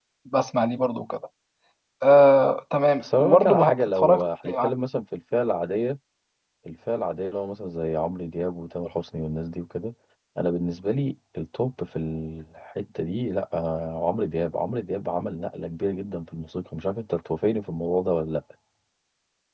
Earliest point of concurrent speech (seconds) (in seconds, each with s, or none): 3.0 s